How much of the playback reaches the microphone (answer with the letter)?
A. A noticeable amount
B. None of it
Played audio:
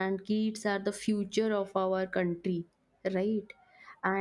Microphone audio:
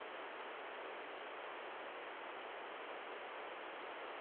B